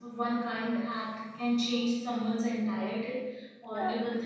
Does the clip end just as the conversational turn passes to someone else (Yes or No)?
No